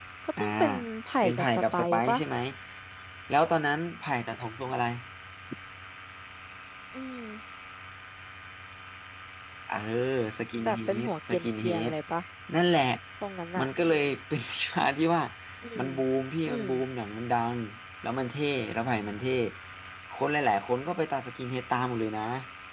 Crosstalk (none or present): present